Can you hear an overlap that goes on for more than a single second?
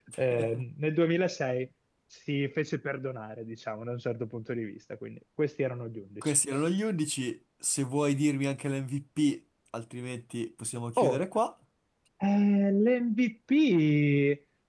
No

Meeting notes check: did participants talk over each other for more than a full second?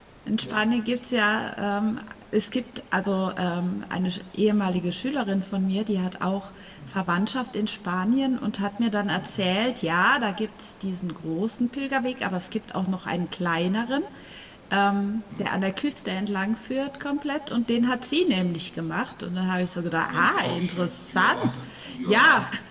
Yes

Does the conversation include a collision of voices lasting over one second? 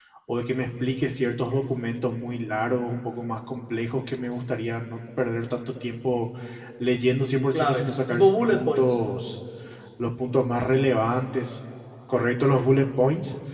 Yes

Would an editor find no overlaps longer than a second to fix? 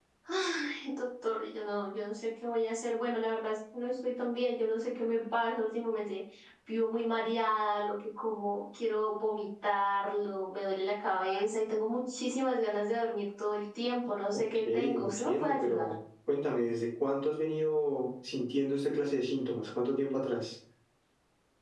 No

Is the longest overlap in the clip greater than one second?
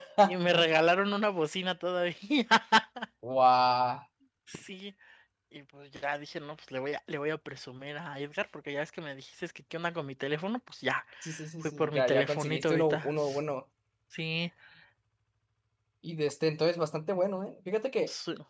Yes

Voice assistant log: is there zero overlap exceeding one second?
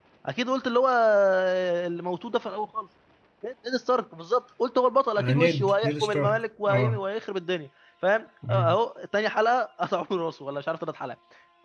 No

